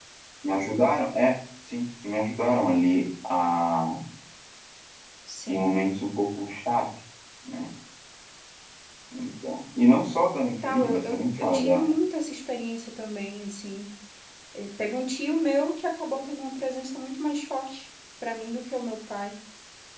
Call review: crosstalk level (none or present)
present